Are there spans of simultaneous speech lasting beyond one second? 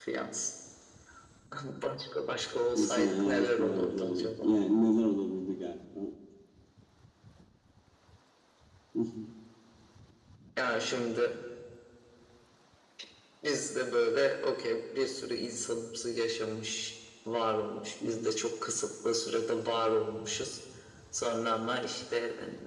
Yes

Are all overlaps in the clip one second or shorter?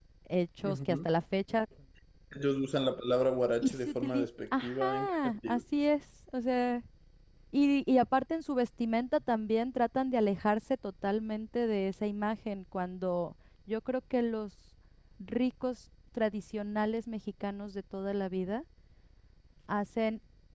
No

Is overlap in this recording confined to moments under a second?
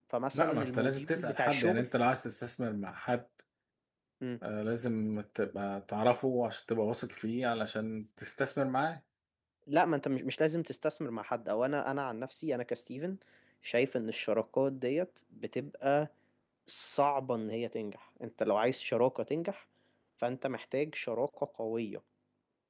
No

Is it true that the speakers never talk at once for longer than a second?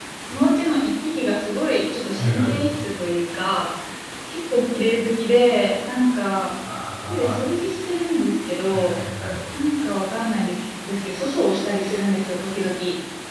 Yes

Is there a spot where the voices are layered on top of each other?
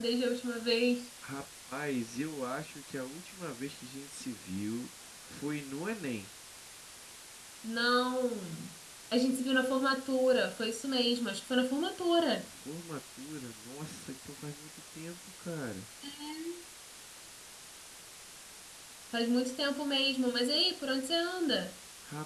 No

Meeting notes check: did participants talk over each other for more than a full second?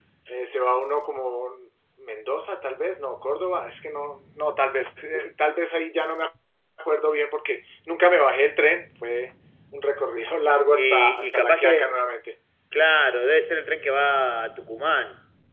Yes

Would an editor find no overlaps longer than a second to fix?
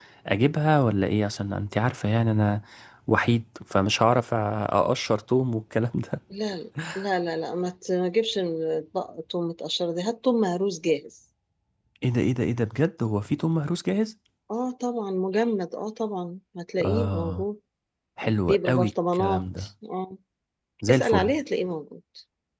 No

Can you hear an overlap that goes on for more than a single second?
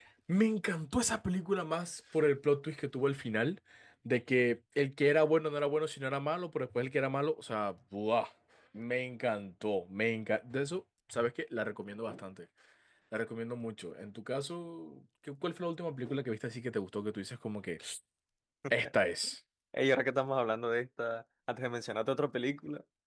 No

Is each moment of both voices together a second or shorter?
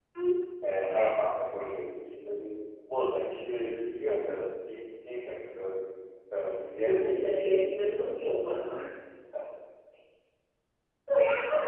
No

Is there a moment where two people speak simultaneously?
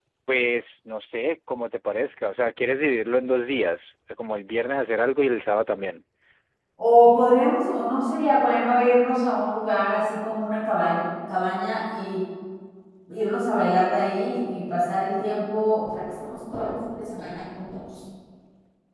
No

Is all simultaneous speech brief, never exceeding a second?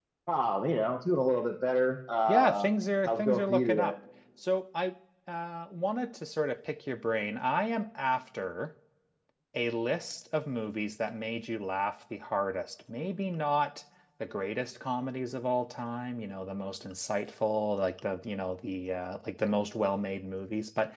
No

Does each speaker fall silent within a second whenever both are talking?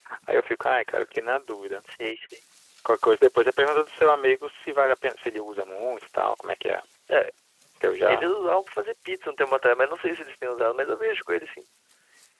Yes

